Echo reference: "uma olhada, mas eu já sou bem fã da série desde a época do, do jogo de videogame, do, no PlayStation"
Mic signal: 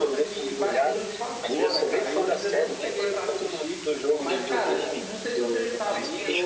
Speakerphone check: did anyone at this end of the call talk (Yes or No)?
Yes